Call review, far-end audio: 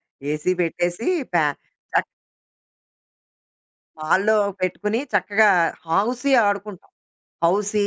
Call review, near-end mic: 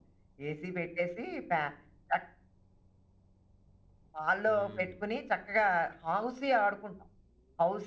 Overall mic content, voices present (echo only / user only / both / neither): both